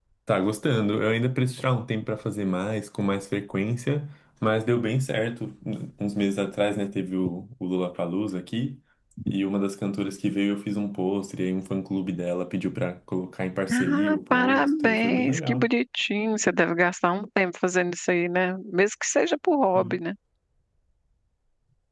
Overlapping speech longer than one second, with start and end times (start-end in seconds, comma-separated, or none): 13.7-15.7